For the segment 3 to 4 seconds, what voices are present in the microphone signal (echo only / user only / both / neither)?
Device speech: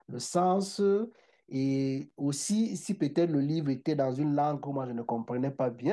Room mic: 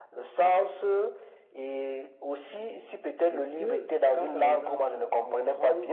both